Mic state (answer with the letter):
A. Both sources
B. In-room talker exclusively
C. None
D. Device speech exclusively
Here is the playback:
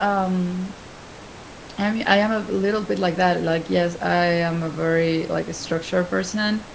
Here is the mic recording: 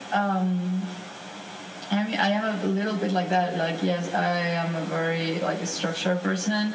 D